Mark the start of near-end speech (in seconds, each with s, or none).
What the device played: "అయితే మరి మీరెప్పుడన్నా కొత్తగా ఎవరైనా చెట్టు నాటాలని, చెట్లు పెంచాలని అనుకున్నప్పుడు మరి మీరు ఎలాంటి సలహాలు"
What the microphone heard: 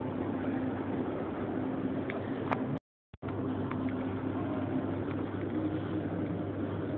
none